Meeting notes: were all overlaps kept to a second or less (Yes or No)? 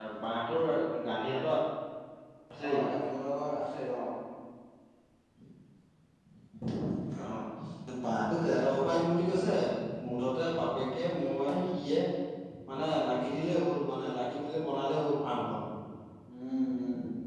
Yes